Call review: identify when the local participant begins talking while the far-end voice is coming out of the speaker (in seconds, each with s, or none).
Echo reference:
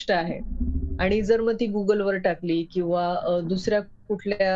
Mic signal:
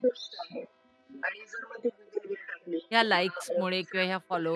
2.9 s